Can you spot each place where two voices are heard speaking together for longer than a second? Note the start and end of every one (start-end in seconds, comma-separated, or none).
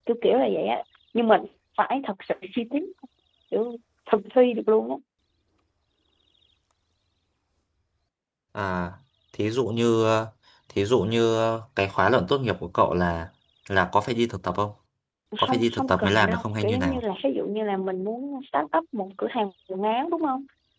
15.5-17.0